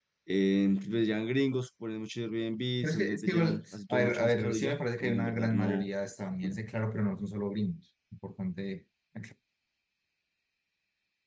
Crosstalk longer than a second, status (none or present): present